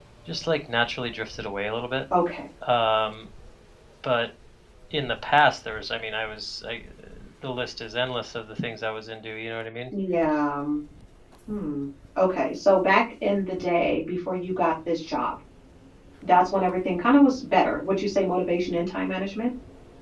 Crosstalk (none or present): none